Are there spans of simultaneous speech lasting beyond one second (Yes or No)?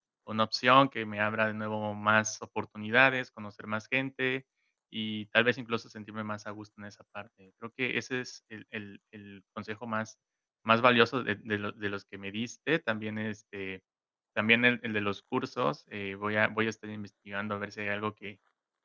No